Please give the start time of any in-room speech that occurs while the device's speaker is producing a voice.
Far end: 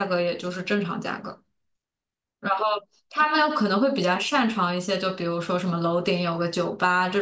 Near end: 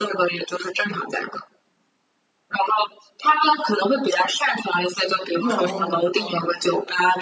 5.3 s

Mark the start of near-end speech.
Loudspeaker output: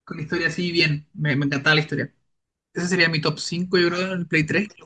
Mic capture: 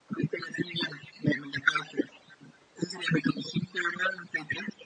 none

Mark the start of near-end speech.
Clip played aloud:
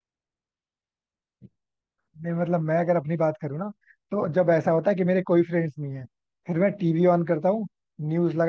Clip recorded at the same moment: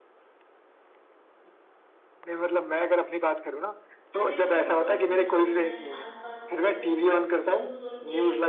4.2 s

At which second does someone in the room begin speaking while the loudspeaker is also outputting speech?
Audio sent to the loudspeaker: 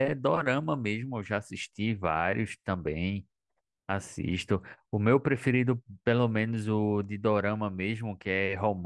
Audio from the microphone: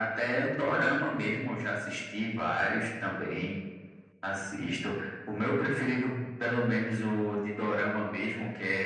0.3 s

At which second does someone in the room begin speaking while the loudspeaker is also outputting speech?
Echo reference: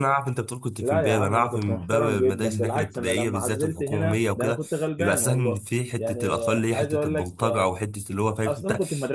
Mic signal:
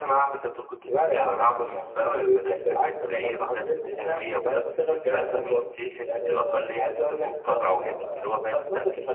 7.7 s

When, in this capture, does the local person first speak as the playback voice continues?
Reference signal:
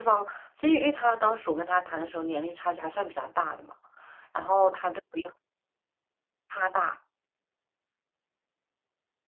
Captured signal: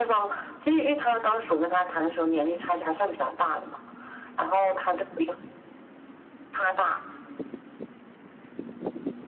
none

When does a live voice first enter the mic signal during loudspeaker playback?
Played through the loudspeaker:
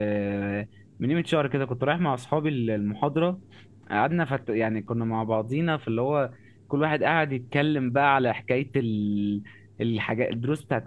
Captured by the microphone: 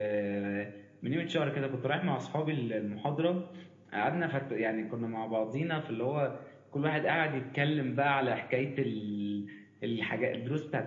none

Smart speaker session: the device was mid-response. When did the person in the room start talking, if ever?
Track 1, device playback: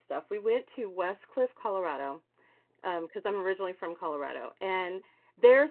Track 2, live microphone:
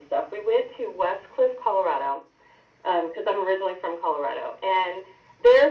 none

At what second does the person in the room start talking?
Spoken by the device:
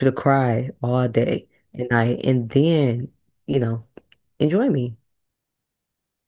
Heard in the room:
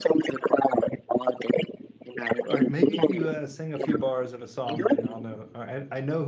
2.4 s

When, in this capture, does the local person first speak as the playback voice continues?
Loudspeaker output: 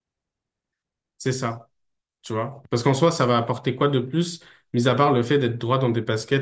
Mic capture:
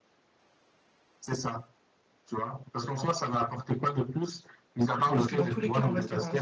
5.1 s

